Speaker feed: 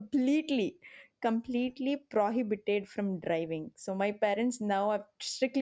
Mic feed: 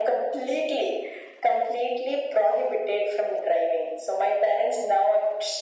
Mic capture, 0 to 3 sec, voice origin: echo only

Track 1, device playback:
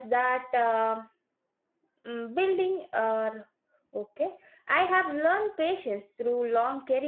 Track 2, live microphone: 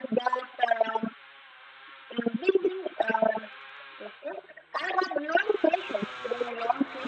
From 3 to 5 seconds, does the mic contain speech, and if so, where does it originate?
echo only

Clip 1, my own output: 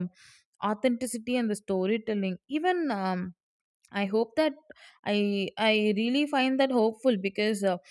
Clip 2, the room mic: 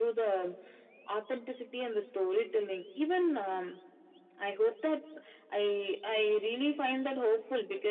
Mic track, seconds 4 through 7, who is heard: echo only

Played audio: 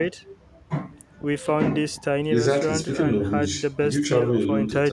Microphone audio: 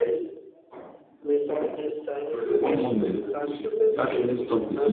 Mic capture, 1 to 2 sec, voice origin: echo only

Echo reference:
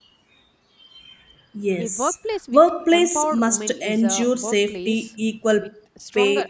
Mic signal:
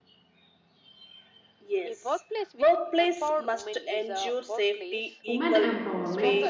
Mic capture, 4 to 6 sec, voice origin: both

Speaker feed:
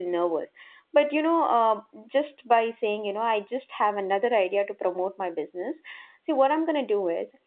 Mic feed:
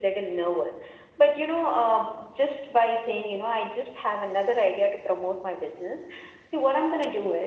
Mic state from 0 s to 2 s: echo only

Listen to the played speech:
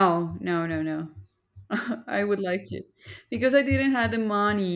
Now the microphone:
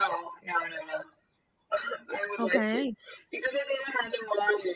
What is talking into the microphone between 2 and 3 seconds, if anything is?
both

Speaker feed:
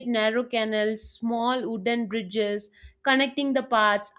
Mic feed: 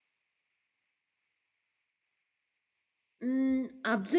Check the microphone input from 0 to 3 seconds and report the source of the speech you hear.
neither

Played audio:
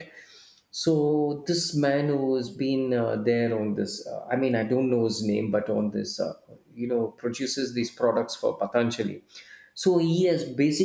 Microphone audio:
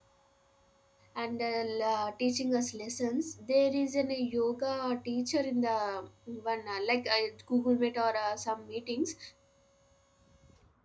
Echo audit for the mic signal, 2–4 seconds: user only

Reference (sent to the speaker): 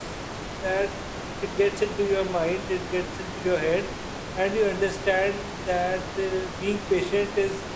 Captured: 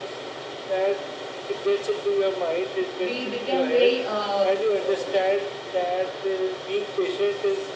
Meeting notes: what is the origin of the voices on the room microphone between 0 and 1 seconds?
echo only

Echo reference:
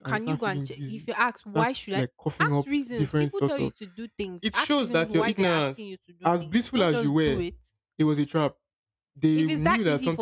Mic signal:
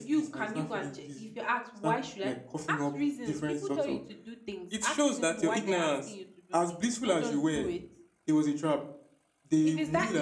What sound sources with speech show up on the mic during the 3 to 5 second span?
echo only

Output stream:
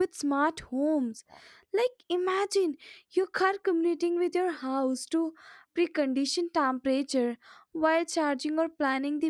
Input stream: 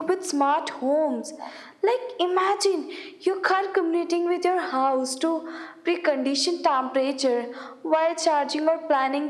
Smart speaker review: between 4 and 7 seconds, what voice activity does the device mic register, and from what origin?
echo only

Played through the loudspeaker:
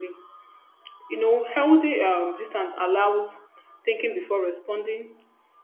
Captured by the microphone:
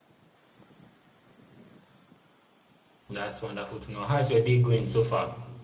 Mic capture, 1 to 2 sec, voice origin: neither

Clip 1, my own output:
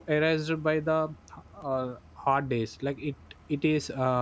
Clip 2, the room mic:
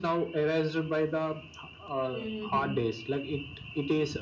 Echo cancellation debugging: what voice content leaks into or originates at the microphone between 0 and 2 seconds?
echo only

